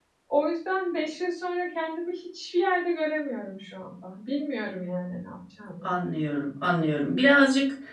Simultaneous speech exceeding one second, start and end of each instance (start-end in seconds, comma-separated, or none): none